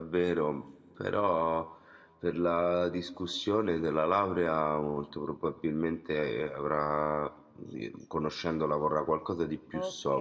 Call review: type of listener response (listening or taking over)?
taking over